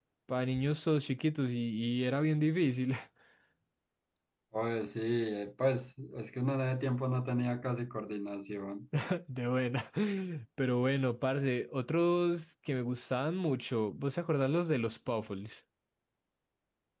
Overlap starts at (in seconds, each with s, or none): none